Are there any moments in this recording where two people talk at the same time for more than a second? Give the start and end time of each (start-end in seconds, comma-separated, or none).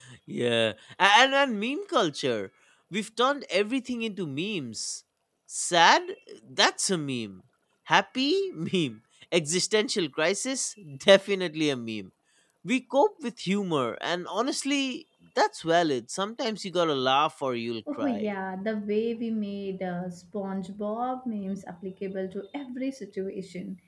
none